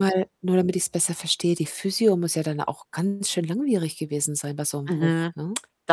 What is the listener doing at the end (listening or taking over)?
taking over